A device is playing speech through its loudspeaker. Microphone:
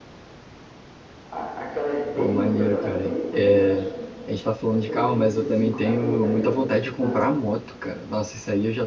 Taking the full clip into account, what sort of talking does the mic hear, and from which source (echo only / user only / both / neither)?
both